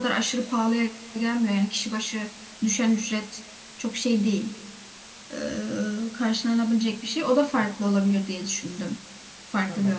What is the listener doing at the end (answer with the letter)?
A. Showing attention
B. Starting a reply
B